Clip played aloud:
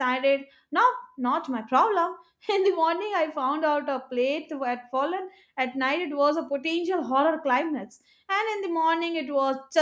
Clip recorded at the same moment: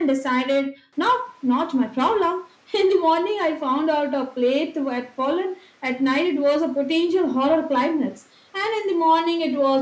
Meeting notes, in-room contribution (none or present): none